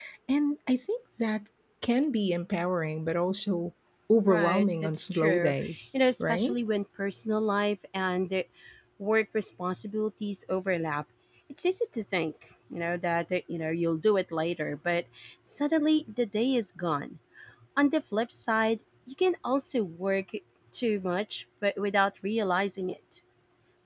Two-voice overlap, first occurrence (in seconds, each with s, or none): 4.3 s